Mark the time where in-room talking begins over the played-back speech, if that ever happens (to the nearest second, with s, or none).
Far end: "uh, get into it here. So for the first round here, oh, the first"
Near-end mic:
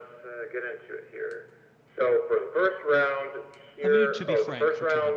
4 s